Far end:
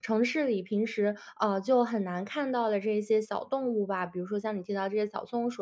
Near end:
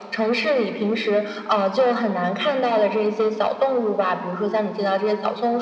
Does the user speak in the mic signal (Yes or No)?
No